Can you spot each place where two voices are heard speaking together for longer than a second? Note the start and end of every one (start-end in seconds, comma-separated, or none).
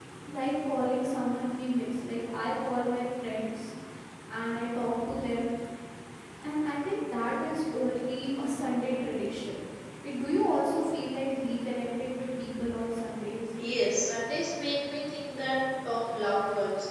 none